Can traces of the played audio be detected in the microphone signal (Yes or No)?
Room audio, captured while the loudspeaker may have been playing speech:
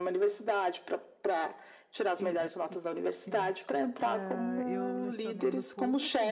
Yes